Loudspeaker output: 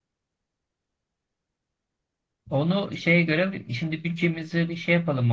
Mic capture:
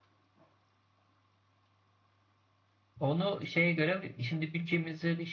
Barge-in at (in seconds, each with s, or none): none